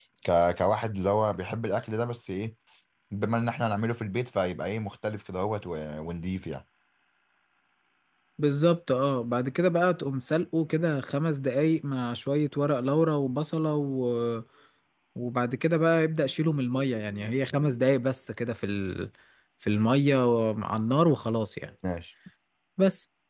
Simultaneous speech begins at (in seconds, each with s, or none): none